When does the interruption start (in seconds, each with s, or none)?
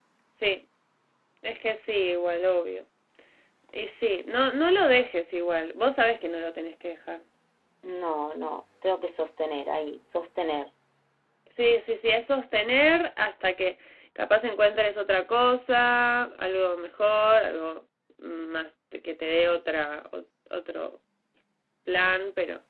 none